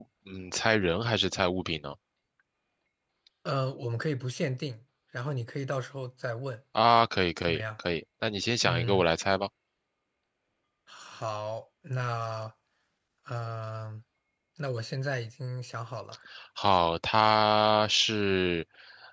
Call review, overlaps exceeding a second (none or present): none